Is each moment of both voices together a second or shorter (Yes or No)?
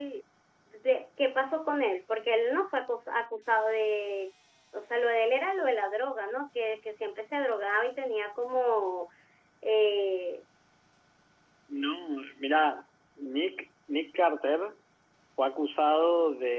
Yes